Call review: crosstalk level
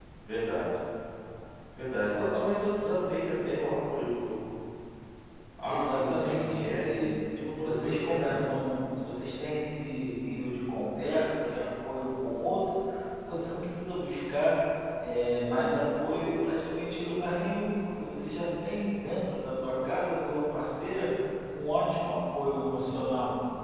present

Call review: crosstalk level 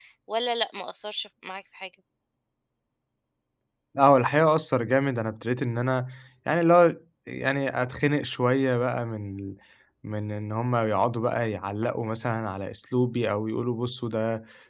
none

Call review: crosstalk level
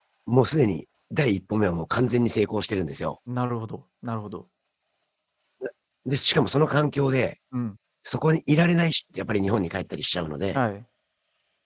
none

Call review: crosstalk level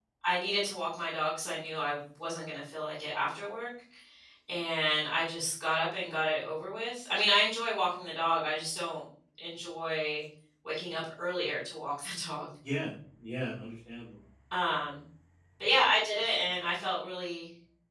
none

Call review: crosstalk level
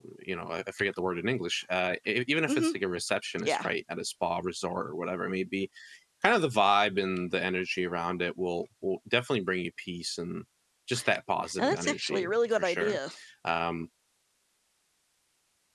present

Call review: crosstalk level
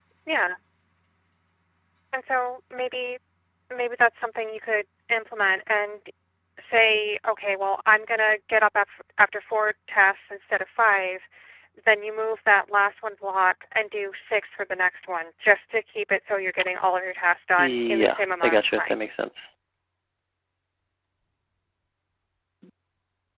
present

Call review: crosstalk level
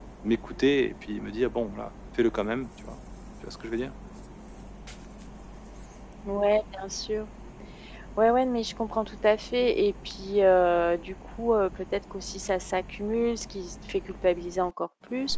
none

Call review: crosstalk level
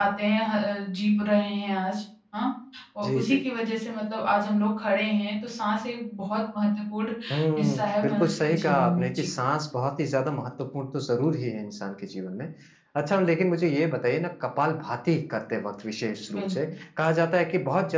present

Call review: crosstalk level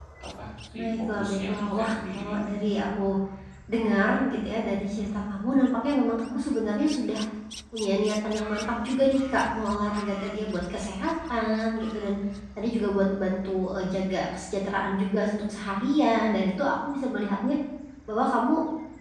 present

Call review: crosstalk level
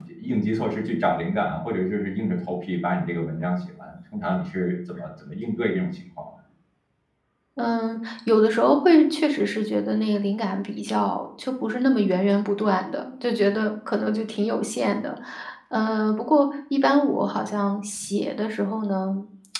none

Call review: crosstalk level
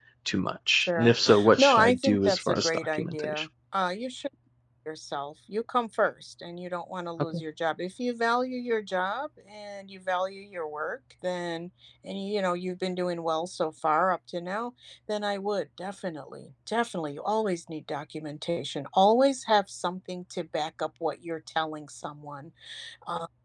present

